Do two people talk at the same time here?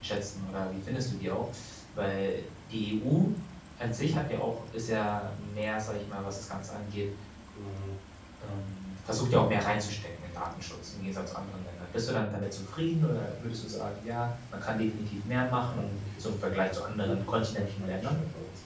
Yes, from 15.6 s

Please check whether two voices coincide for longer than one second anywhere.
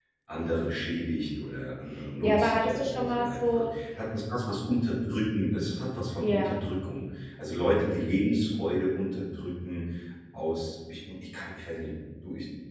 Yes, from 2.2 s

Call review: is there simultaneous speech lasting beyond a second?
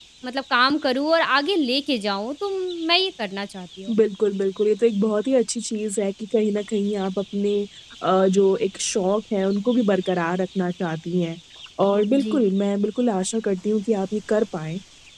No

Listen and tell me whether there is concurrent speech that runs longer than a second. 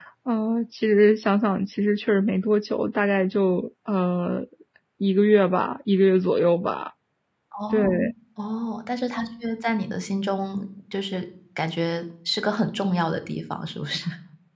No

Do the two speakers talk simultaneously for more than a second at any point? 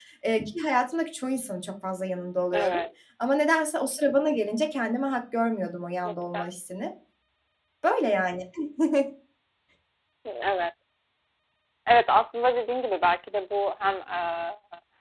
No

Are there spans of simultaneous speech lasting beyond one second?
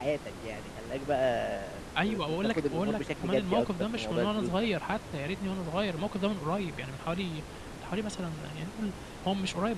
Yes, from 2.0 s

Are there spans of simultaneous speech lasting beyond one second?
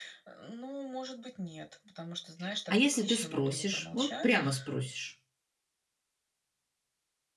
Yes, from 2.7 s

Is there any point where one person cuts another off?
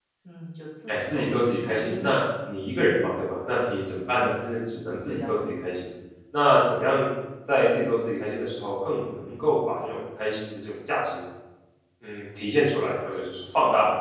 Yes, from 0.9 s

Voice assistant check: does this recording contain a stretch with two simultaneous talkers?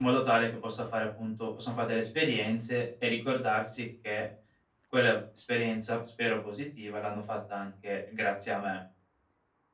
No

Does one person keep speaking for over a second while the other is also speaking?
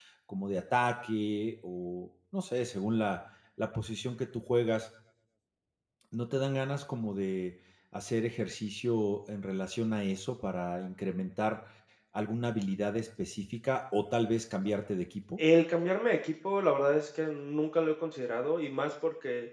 No

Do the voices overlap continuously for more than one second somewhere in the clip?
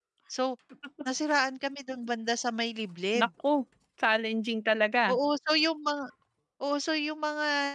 No

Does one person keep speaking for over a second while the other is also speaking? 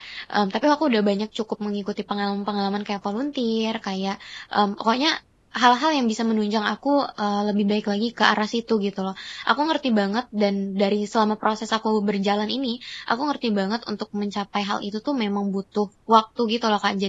No

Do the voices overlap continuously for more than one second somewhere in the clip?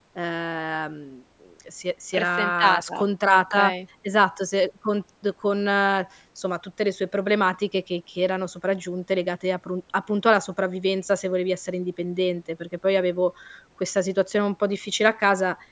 Yes, from 2.1 s

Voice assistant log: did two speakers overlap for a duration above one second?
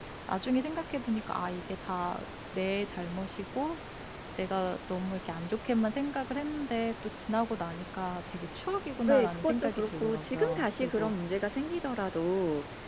Yes, from 9.1 s

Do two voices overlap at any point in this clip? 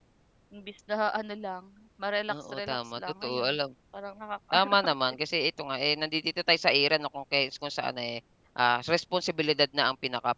Yes, from 2.3 s

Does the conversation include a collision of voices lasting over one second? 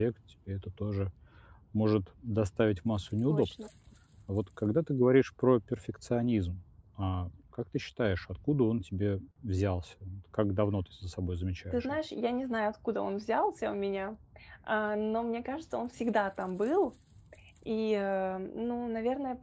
No

